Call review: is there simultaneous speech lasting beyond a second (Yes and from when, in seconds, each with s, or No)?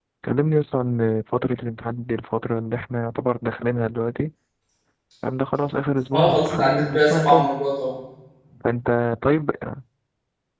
Yes, from 6.1 s